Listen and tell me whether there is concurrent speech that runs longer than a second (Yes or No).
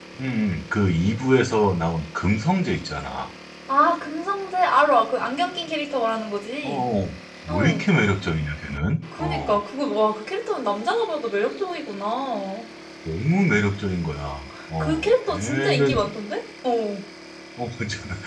Yes